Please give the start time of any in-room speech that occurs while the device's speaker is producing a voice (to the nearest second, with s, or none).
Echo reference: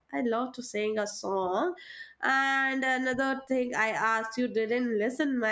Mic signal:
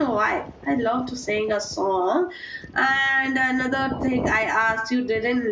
none